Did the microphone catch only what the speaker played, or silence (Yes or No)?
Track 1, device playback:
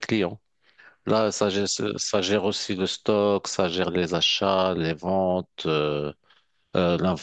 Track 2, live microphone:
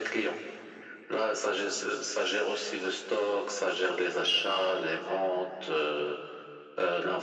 Yes